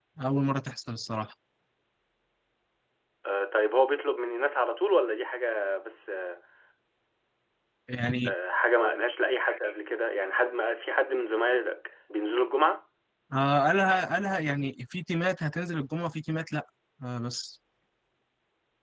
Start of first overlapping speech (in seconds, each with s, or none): none